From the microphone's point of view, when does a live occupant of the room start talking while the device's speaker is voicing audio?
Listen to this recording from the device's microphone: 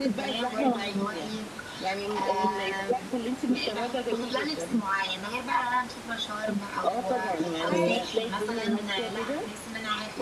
8 s

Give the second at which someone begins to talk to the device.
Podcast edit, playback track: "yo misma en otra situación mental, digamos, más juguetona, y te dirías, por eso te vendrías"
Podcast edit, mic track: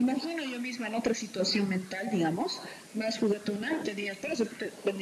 none

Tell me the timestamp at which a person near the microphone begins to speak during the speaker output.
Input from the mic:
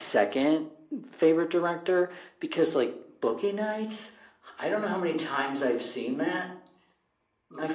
none

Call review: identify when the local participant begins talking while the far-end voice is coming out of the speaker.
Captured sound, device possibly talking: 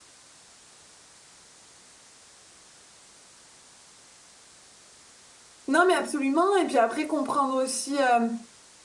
6 s

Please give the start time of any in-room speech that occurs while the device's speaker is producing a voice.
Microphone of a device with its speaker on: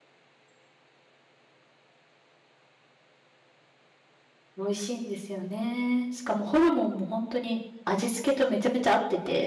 5 s

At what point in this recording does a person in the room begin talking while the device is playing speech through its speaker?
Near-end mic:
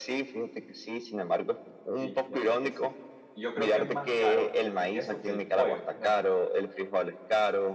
2 s

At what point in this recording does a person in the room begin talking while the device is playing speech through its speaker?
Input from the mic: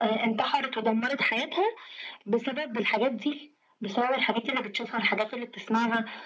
none

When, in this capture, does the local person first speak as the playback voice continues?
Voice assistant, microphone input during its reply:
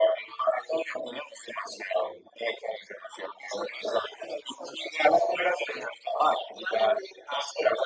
none

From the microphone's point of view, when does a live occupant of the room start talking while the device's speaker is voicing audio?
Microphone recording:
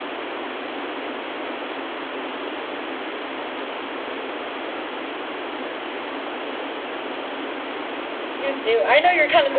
8 s

